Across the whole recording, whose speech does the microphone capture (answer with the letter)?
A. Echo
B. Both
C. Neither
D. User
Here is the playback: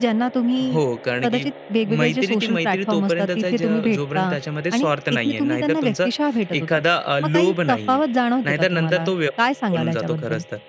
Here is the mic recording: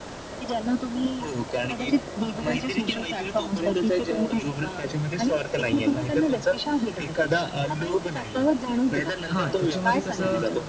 B